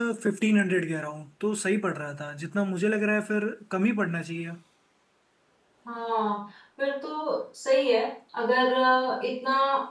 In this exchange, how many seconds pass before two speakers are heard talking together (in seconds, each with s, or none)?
none